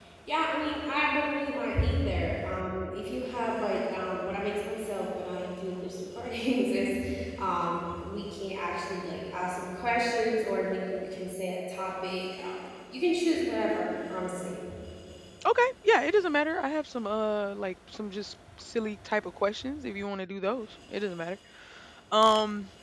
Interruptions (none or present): none